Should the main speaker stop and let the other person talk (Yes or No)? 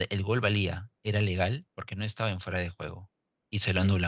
No